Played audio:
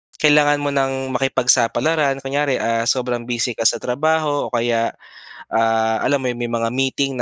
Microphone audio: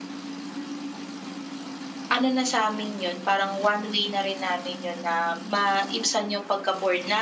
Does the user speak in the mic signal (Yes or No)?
Yes